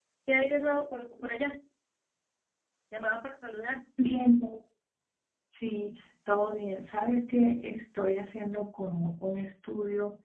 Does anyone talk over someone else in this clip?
No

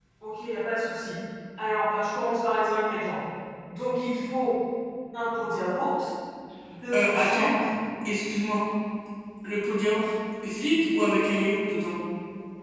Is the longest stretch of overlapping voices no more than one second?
Yes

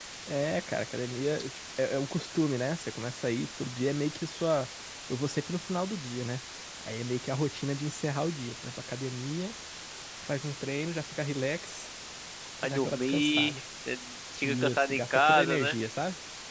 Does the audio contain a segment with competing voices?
Yes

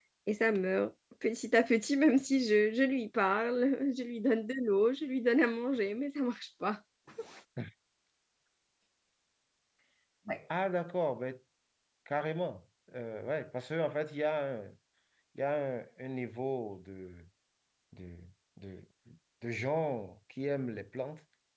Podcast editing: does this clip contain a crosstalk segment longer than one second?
No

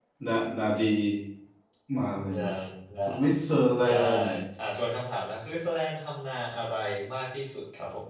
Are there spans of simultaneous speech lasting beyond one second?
No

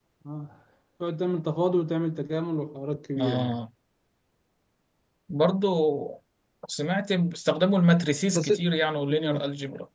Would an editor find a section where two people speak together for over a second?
No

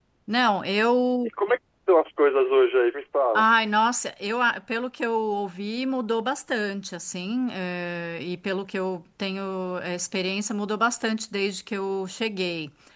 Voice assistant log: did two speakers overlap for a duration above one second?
No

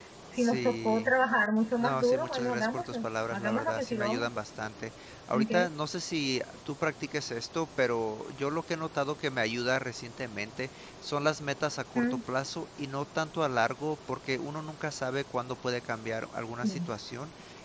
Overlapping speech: Yes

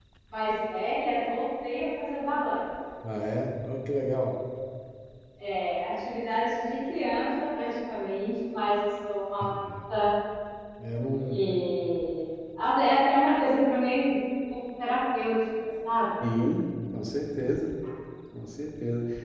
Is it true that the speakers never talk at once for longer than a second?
Yes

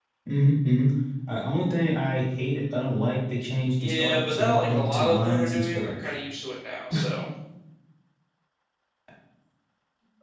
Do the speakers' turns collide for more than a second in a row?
Yes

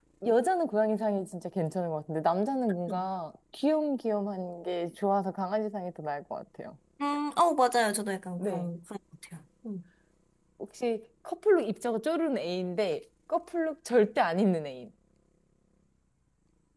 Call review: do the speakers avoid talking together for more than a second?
Yes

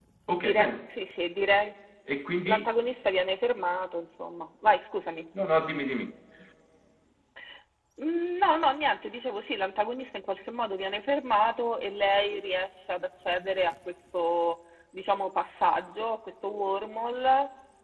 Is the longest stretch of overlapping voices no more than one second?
Yes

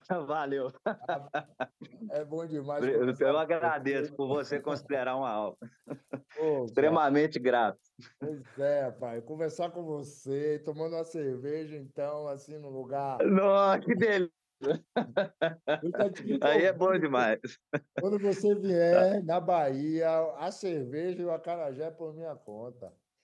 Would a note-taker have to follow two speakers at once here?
Yes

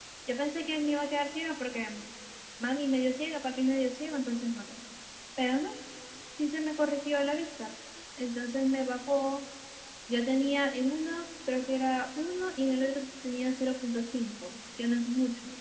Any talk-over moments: No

